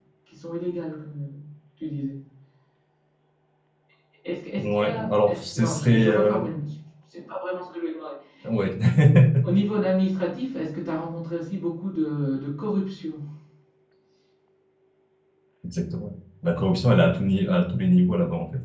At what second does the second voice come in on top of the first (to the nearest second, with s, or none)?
5 s